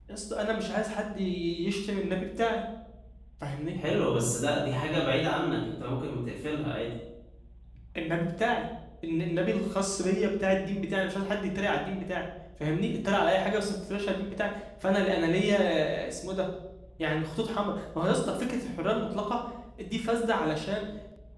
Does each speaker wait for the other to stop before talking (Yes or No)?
Yes